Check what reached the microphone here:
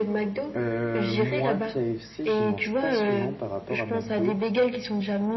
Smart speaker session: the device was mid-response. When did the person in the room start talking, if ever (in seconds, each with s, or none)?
0.5 s